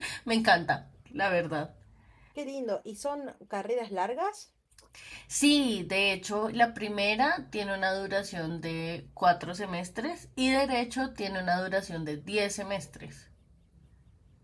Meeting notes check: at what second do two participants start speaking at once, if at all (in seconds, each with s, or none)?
none